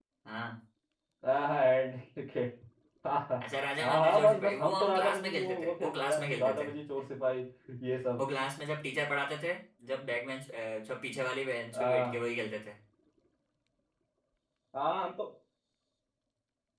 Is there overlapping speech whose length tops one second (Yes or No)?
Yes